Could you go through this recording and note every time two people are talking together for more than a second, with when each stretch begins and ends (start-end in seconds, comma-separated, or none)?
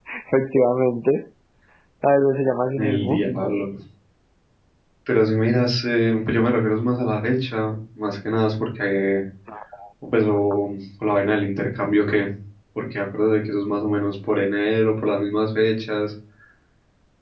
none